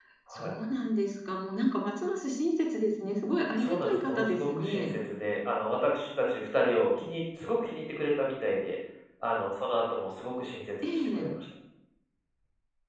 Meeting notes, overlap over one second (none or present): present